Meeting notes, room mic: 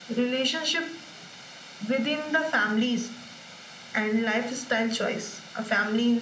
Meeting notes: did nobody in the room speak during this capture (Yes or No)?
Yes